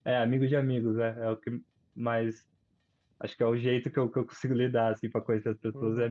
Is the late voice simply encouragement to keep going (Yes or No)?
No